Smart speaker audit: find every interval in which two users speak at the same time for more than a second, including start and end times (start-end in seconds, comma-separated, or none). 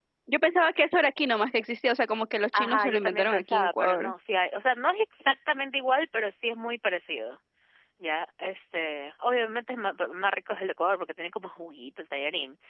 2.6-4.1